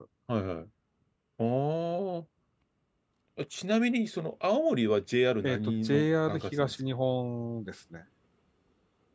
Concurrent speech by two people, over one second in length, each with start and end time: 5.4-6.7

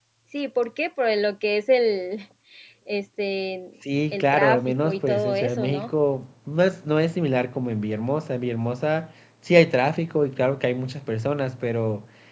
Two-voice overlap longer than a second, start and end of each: 4.1-5.9

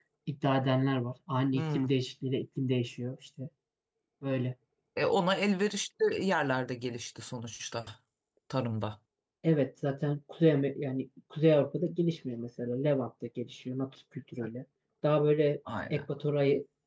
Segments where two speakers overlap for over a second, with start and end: none

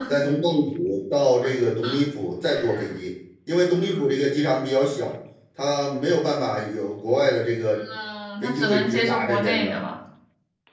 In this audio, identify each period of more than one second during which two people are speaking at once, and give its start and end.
8.4-9.8

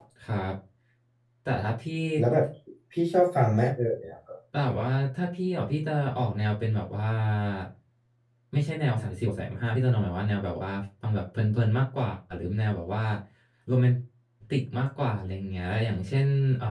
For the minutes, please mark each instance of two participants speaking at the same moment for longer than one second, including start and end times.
none

